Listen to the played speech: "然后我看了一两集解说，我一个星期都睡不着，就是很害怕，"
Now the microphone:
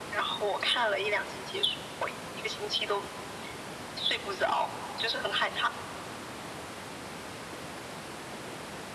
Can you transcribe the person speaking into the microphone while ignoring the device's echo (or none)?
none